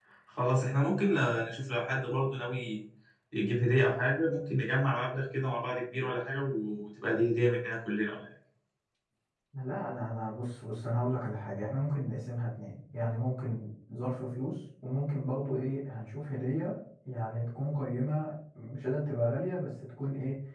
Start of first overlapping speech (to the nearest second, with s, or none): none